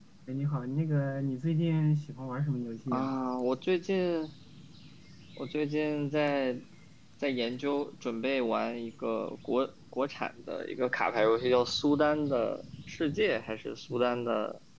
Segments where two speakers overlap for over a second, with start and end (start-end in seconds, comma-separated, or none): none